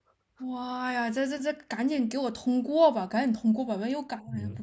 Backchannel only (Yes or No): No